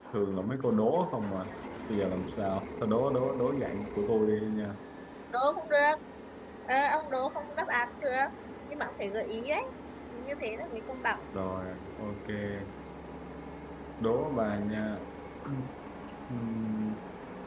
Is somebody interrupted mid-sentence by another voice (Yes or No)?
No